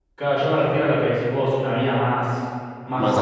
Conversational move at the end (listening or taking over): listening